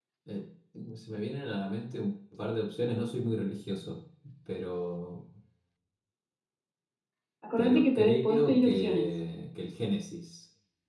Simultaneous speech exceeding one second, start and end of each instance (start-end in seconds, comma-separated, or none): 7.6-9.1